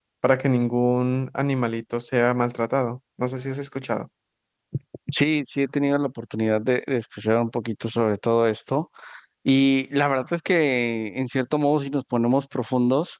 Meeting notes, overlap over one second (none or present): none